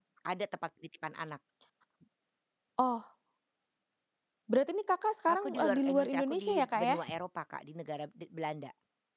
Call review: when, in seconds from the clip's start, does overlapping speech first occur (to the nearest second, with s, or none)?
5 s